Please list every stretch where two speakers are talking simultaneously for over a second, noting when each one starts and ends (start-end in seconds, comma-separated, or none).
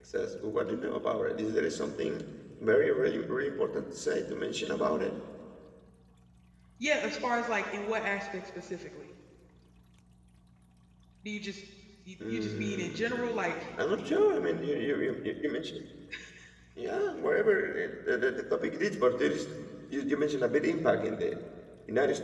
12.3-13.5